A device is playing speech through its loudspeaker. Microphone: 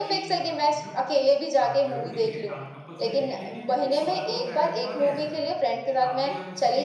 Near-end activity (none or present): present